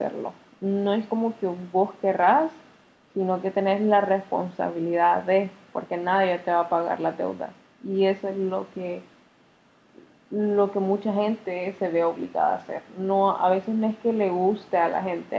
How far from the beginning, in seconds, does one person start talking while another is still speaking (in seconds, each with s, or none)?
none